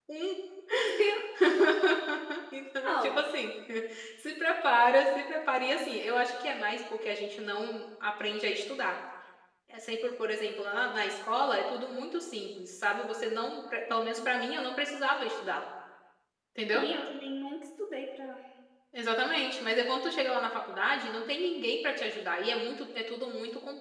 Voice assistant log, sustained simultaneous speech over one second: none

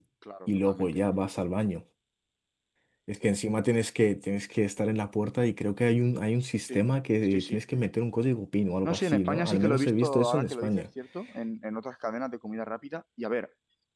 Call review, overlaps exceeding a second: present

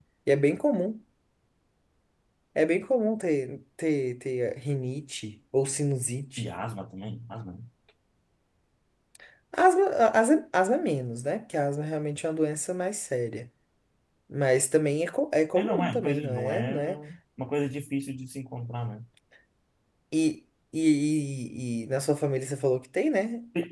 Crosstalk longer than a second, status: present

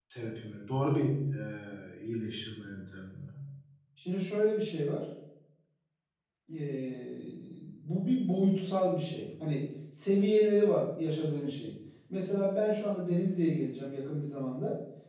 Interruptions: none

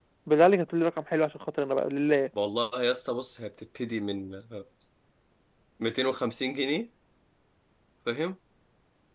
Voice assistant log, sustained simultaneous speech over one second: none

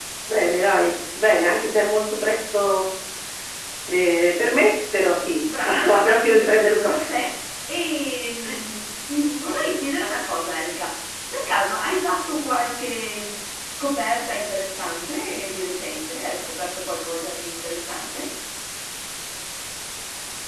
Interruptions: present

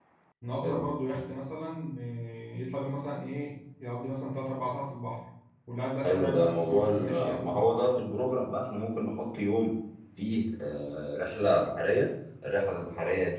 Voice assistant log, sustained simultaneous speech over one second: present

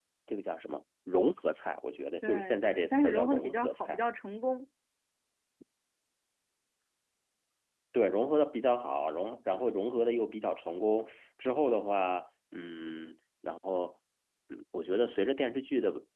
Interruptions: present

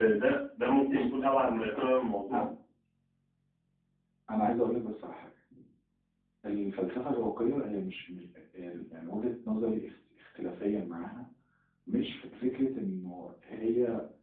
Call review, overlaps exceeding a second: none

